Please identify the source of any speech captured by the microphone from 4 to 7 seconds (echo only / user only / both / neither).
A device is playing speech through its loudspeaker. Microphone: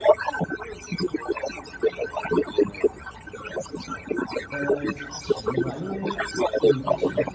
both